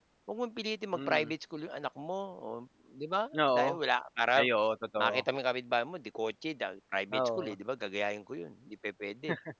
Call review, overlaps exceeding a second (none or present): none